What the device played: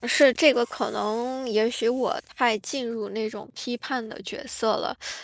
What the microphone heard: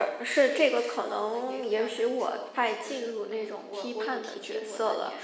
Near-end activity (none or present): present